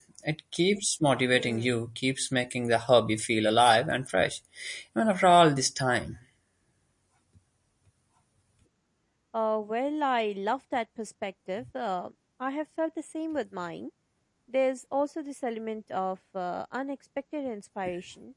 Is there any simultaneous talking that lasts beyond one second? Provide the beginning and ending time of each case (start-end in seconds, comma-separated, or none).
none